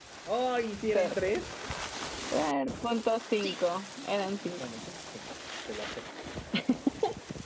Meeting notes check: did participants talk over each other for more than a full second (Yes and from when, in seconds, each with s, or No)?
No